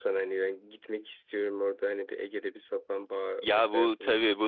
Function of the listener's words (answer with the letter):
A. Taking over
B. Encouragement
A